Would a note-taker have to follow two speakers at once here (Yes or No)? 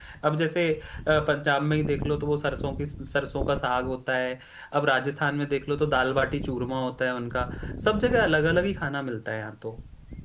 No